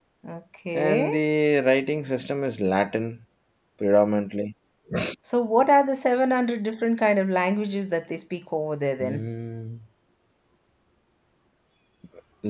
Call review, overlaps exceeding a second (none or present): none